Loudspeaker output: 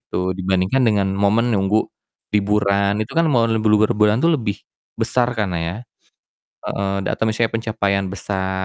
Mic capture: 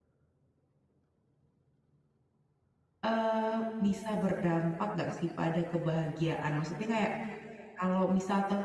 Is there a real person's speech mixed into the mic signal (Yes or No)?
Yes